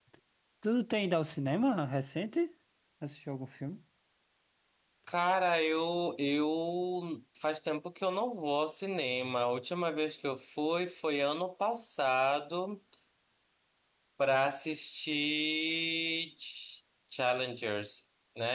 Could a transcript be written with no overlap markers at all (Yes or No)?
Yes